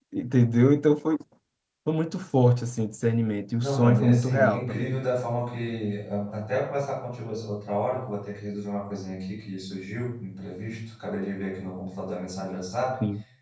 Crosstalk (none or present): present